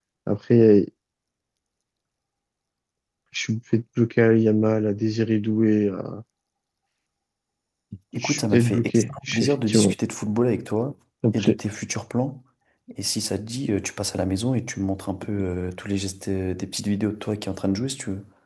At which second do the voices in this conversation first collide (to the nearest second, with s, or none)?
8 s